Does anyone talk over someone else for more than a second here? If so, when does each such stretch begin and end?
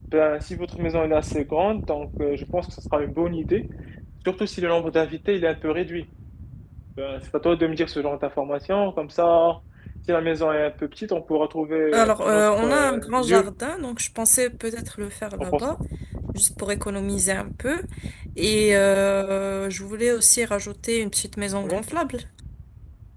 11.9-13.5

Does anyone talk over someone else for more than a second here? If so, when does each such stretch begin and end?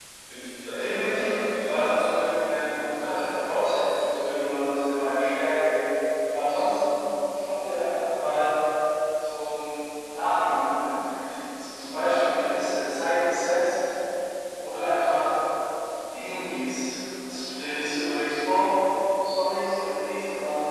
0.7-3.2

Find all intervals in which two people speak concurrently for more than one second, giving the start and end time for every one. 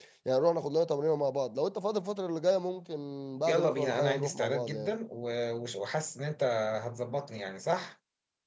3.5-5.0

